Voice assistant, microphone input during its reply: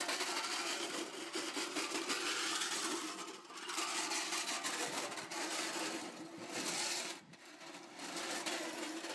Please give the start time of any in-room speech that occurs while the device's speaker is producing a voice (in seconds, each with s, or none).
none